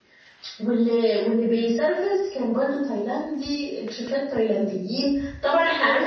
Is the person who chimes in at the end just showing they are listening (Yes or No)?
Yes